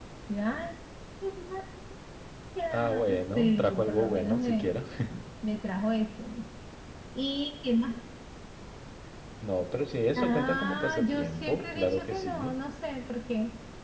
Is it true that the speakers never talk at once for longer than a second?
No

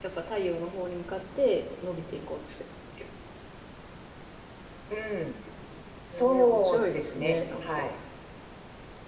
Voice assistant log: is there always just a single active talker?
No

